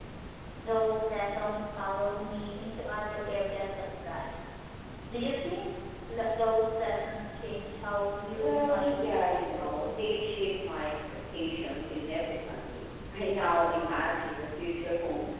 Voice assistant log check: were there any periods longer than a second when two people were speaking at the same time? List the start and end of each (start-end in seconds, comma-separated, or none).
8.3-10.1